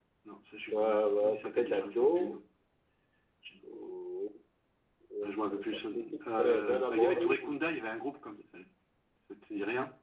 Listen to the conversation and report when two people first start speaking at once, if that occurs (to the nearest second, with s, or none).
1 s